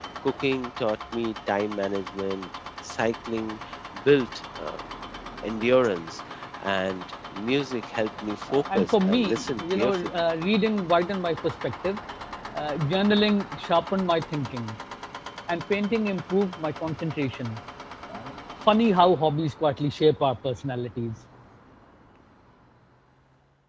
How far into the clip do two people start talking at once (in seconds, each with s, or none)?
8.4 s